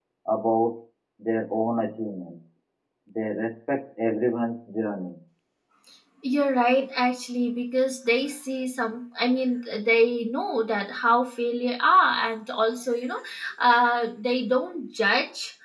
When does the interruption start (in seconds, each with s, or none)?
none